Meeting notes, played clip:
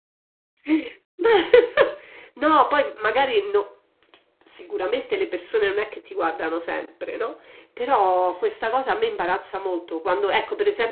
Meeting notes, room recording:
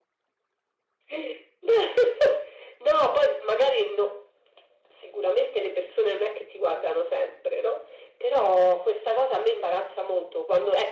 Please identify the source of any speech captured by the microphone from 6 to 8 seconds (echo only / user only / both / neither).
echo only